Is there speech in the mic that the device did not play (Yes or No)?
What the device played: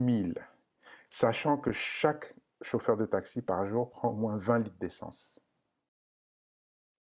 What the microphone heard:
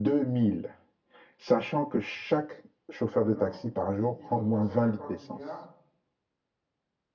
Yes